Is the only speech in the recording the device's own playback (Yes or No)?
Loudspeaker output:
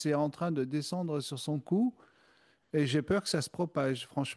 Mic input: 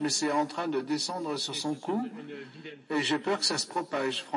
No